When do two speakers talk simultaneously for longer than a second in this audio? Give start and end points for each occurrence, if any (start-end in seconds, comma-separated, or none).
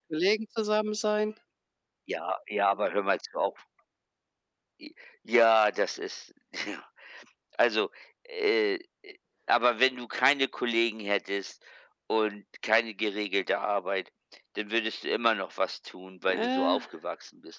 none